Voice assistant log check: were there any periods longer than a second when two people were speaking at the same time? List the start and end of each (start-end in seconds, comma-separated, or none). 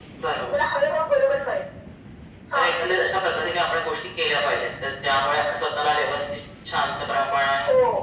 none